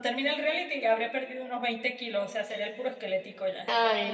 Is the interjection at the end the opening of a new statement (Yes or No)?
Yes